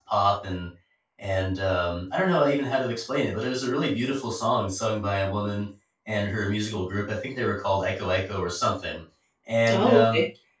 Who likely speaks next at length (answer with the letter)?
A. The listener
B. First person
B